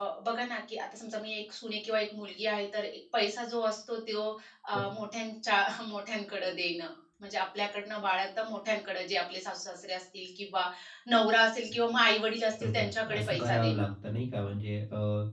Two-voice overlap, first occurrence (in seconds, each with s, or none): 12.5 s